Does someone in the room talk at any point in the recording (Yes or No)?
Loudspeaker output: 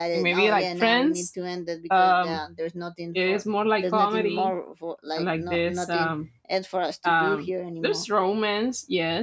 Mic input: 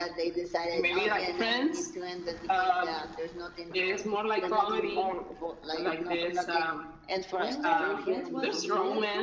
Yes